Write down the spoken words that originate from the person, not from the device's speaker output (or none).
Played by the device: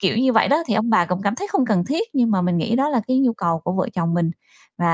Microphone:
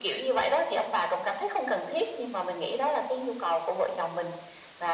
none